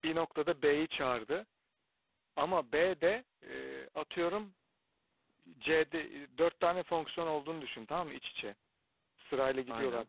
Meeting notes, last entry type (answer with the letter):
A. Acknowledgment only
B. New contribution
A